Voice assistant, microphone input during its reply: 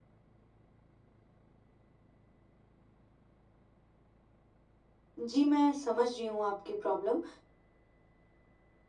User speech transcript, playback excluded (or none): जी, मैं समझ रही हूँ आपकी प्रॉब्लम।